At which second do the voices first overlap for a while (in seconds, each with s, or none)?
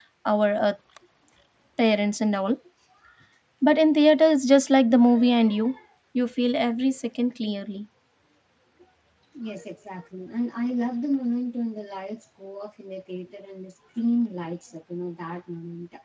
none